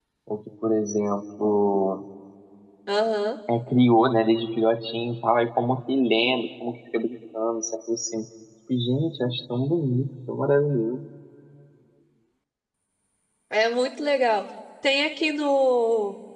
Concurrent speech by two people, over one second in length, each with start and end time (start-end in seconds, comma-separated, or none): none